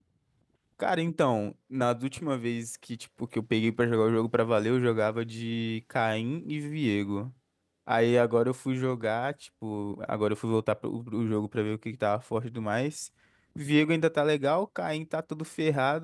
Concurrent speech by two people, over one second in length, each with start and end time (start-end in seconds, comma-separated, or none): none